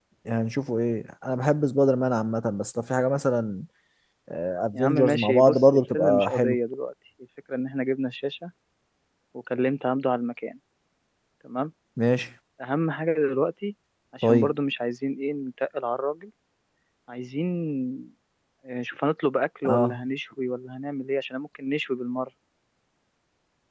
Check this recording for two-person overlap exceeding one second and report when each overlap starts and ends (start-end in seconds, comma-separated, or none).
4.7-6.6